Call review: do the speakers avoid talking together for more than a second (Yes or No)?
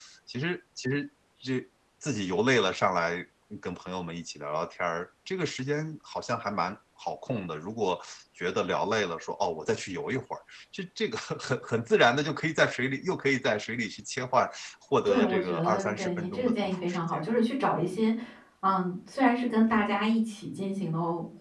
No